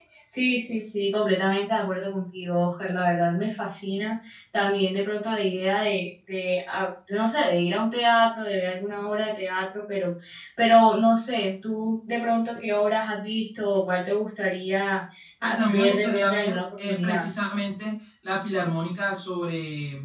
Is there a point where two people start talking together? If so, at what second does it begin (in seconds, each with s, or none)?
15.4 s